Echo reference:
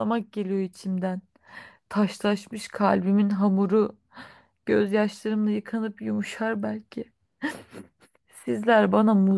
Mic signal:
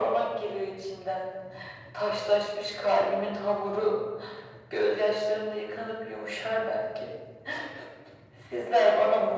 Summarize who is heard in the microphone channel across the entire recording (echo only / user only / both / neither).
echo only